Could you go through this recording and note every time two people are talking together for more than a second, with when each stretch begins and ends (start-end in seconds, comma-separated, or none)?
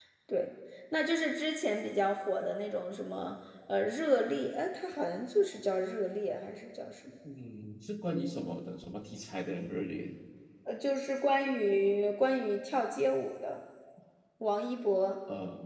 none